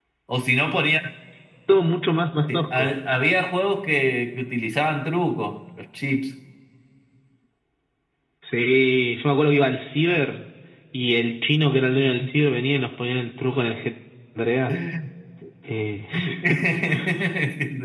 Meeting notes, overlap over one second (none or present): none